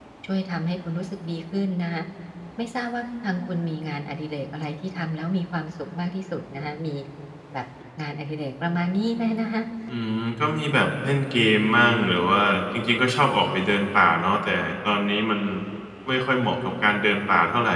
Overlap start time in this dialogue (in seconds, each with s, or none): none